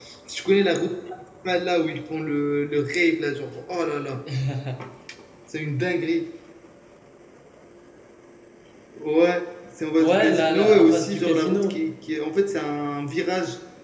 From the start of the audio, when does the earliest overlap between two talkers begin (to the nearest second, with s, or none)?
10 s